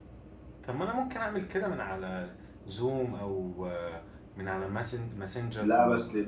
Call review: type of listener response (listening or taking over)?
taking over